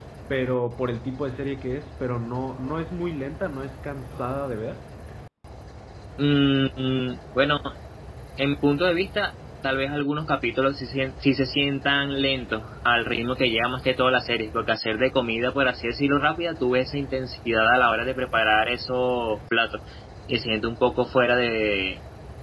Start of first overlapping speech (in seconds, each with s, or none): none